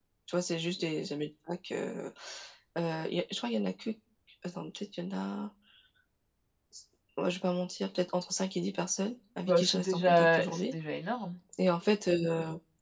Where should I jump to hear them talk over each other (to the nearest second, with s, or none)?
9 s